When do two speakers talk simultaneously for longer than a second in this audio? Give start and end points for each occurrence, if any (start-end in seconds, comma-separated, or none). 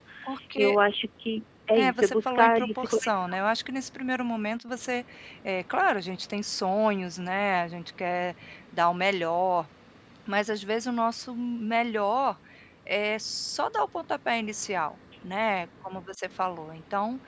1.7-3.2